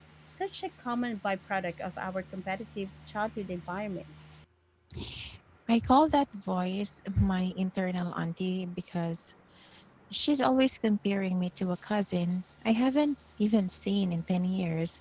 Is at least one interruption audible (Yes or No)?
No